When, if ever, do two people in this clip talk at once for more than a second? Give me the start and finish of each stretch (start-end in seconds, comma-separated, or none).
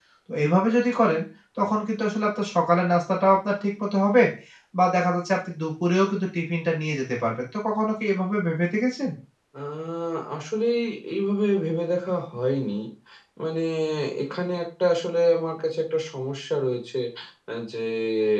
none